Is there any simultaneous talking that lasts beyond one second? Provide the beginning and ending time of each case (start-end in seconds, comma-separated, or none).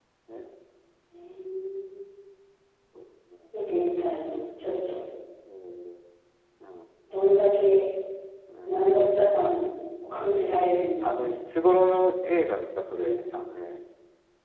none